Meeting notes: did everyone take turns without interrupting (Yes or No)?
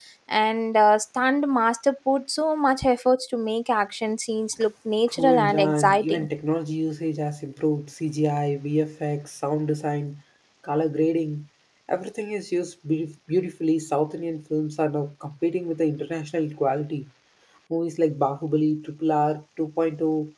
No